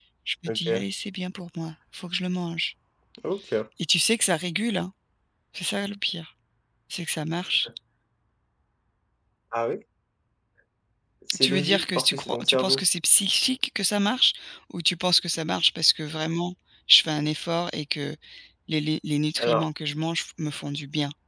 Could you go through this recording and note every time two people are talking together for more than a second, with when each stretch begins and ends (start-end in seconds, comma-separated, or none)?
11.4-12.8